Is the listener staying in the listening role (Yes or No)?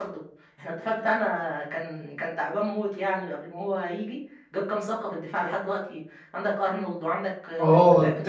No